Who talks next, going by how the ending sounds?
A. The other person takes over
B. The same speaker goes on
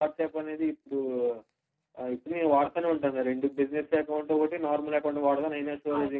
B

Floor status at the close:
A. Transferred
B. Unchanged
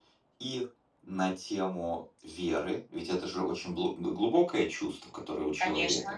B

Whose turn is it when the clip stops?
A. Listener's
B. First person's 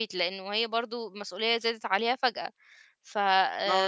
A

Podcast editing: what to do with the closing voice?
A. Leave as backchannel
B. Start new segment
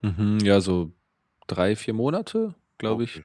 B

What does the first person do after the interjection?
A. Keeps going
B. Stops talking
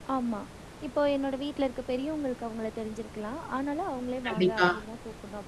A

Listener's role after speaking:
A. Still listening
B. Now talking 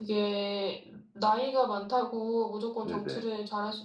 A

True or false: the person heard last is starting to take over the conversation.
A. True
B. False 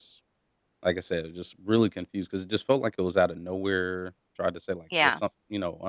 B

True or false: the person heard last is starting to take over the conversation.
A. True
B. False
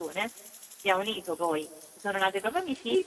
A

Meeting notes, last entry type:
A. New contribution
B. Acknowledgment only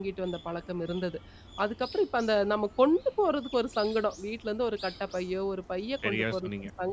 B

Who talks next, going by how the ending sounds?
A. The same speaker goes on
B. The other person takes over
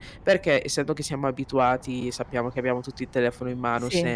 A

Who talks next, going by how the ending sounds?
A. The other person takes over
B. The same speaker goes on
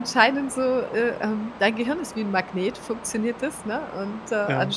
B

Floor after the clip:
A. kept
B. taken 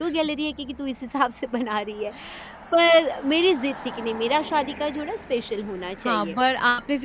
B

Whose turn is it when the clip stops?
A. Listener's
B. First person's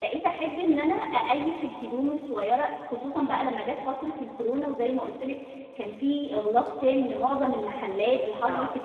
B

